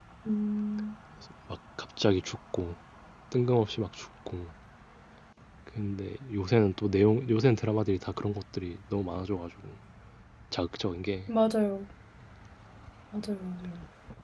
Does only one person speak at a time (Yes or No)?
Yes